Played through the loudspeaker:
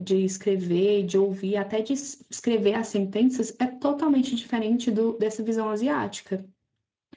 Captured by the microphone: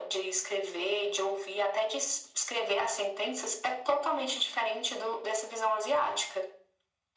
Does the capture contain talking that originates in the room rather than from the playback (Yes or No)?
No